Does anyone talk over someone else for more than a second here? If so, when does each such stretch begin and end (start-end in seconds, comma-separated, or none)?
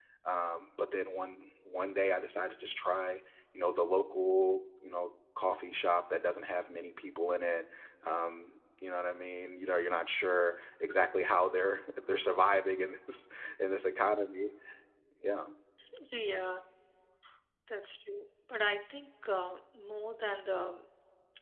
none